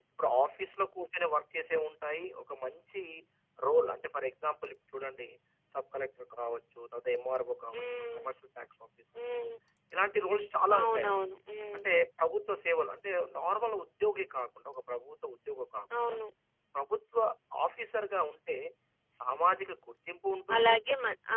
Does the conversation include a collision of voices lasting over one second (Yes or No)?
No